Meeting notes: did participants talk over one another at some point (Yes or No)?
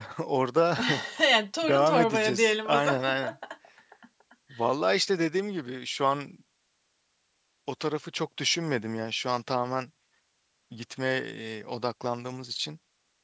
Yes